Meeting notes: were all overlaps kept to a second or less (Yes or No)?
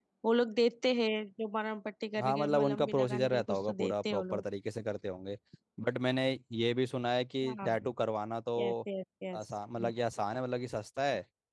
No